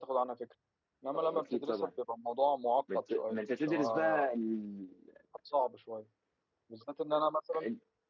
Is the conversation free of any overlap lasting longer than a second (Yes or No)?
No